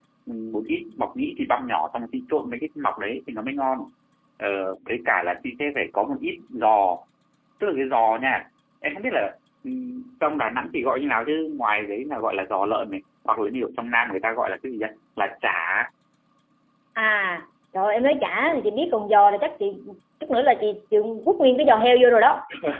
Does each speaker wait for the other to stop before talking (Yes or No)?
Yes